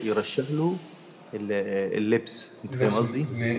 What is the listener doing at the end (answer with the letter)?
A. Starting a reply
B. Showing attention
A